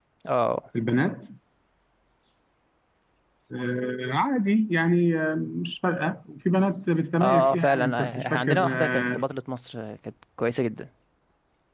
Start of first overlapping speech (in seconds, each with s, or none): 7.2 s